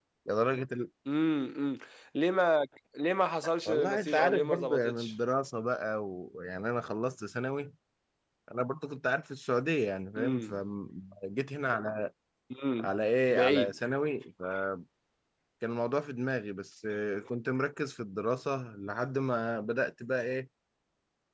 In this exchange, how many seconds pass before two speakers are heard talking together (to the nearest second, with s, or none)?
4 s